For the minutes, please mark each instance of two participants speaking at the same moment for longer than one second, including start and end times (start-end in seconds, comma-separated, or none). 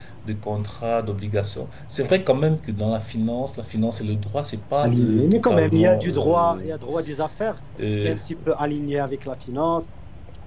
4.8-6.7